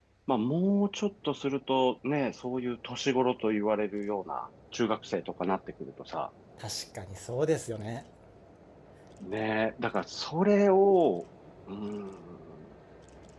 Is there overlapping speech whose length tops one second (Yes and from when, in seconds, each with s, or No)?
No